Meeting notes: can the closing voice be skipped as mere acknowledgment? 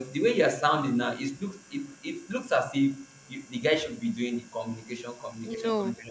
No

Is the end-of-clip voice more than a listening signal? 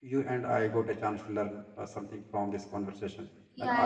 Yes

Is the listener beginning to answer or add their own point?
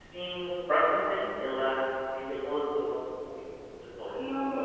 Yes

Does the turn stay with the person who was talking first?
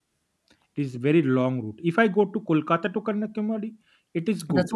No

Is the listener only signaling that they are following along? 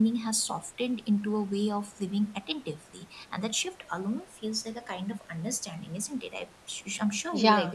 No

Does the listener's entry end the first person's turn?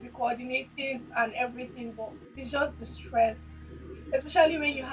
No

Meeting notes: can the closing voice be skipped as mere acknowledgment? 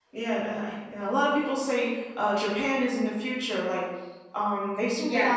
Yes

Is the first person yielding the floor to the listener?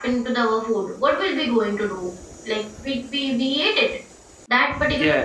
No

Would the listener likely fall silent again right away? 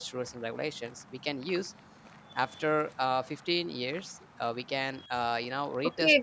No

